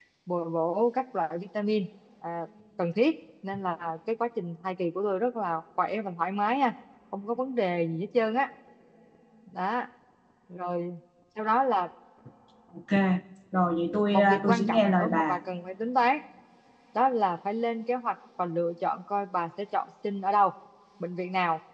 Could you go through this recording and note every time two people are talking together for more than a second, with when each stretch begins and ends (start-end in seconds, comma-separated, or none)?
14.1-15.4